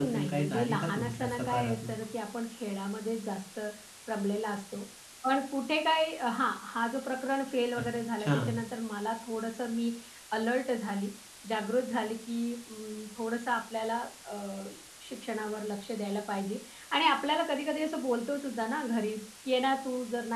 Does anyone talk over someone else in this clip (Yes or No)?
Yes